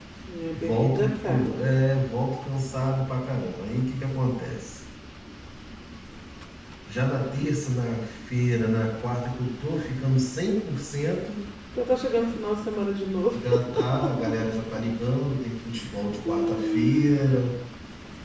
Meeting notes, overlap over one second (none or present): present